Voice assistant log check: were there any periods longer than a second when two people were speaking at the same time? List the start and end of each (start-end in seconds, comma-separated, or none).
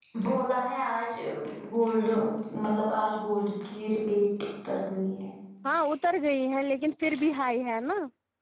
none